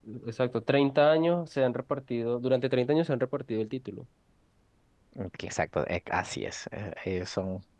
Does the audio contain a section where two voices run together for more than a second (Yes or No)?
No